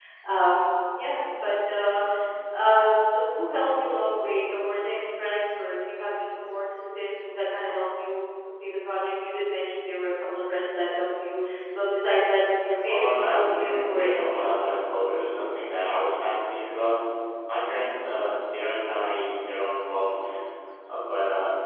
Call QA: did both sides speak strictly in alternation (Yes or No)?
No